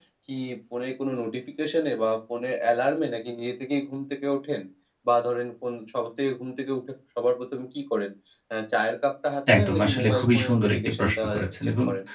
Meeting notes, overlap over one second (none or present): present